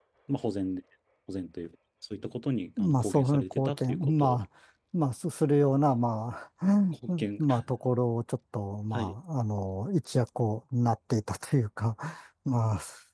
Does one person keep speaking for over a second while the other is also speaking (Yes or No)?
Yes